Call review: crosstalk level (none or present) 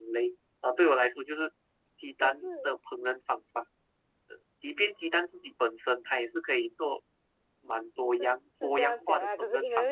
present